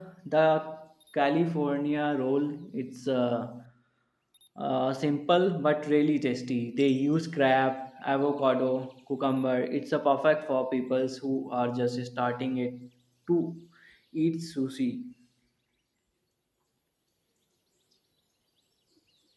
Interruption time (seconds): none

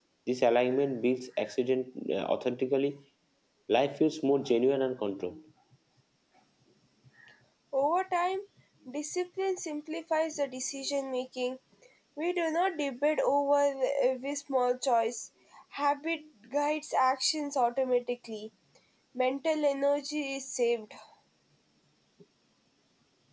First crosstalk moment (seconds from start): none

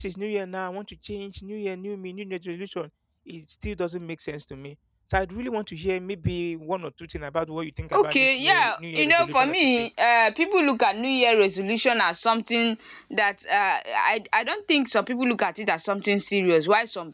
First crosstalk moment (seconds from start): 7.9 s

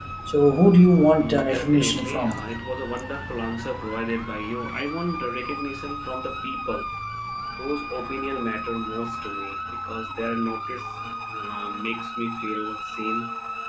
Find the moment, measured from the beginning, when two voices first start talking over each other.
1.2 s

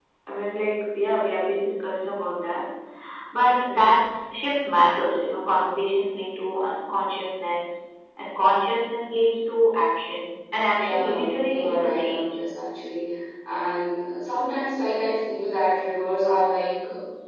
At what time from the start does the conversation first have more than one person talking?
10.7 s

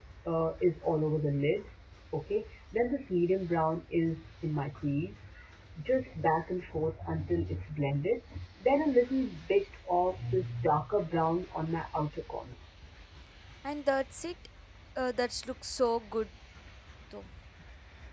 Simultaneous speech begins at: none

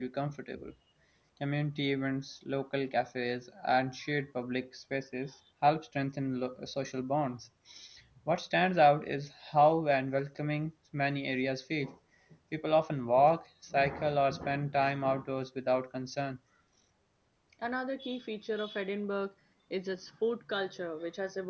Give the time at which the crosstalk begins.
none

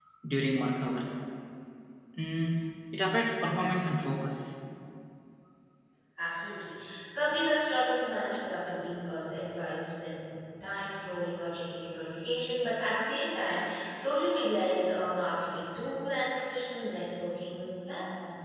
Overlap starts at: none

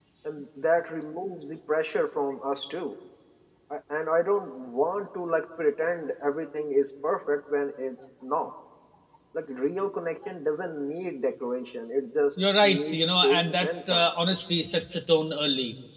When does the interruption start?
12.6 s

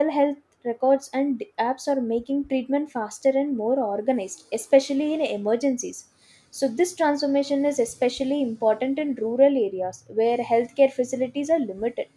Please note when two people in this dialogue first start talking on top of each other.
none

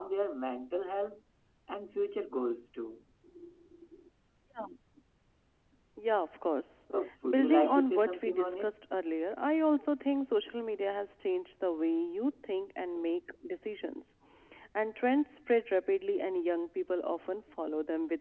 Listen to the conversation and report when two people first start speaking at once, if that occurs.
7.3 s

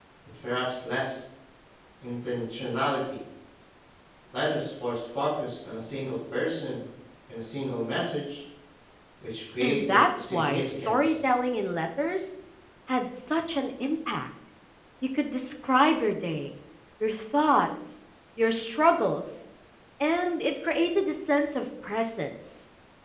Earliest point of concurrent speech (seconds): 9.6 s

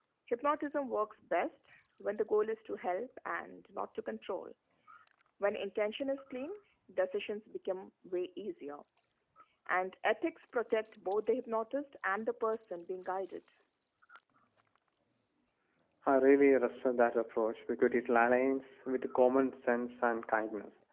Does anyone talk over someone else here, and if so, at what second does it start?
none

